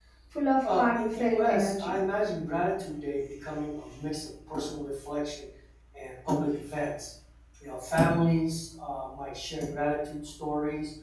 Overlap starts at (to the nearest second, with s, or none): 1 s